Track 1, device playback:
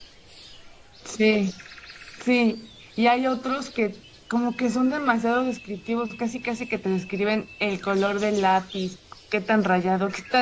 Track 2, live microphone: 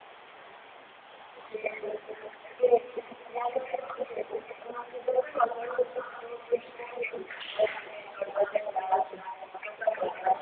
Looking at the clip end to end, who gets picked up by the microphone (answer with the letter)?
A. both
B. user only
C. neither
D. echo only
D